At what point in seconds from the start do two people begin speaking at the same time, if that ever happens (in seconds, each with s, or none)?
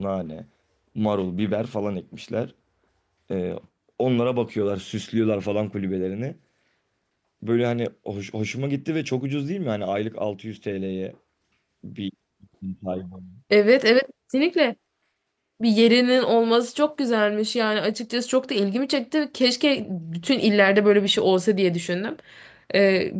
none